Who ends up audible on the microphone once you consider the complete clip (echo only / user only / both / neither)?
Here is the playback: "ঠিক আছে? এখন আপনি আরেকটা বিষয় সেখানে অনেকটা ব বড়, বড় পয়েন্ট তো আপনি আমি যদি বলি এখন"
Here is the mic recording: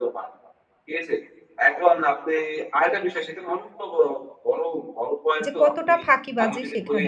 both